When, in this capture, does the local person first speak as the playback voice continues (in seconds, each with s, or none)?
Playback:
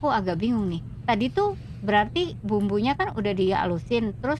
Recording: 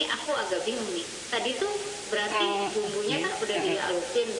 2.2 s